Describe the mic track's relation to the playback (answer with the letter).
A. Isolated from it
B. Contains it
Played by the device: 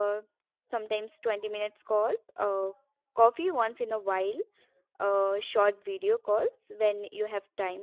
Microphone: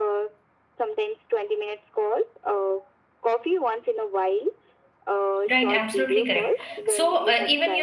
B